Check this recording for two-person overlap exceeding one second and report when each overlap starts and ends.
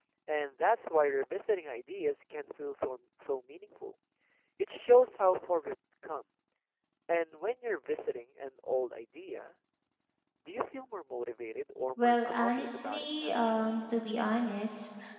12.0-13.6

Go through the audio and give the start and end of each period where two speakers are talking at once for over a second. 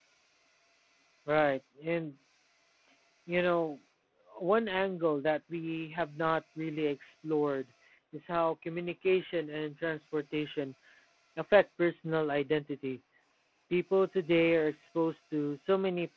none

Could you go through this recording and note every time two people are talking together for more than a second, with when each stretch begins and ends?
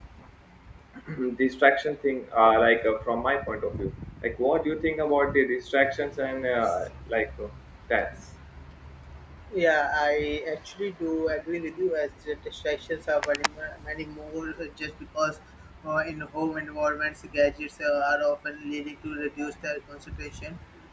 none

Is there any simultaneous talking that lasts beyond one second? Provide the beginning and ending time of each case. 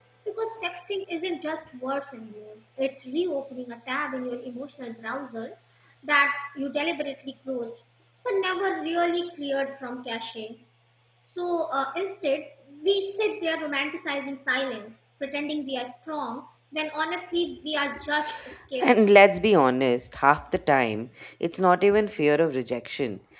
none

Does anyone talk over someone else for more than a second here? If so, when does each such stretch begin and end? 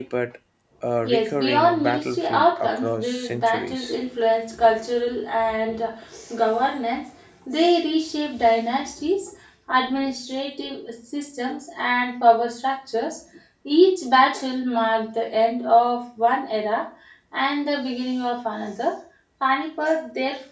1.0-3.9

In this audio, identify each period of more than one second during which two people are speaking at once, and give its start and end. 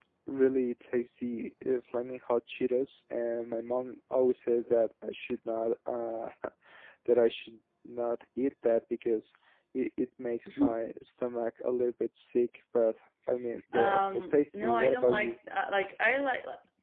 13.7-15.3

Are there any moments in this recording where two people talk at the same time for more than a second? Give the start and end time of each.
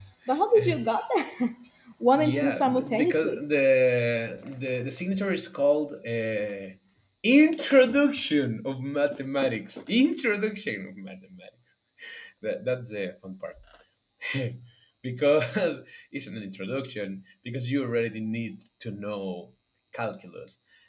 2.1-3.4

